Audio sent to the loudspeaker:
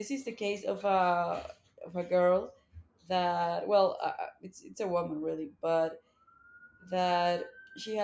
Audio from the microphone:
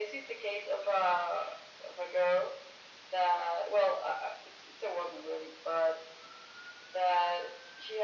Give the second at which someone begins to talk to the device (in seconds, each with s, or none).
none